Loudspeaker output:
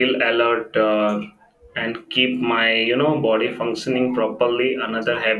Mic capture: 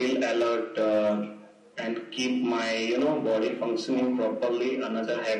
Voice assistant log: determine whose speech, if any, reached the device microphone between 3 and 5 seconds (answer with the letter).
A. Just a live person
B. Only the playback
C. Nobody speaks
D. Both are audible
B